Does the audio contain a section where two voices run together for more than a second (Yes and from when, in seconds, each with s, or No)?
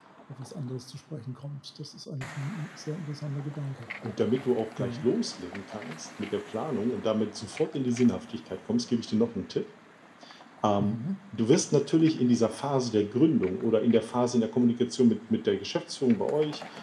No